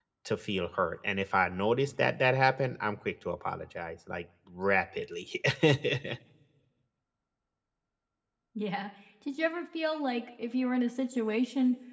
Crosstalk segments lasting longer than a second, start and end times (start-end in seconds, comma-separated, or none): none